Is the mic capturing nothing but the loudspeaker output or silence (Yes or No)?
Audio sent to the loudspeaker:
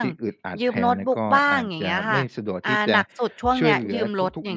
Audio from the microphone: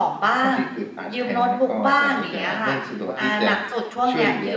No